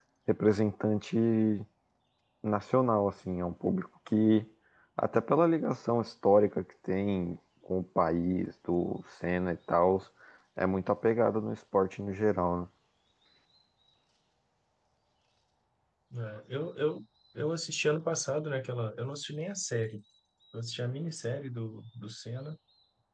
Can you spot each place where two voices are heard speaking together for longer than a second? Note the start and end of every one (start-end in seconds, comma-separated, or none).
none